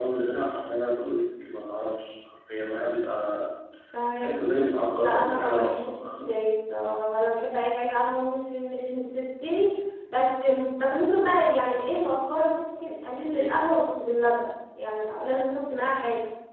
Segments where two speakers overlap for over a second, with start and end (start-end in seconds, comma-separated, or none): 5.0-6.3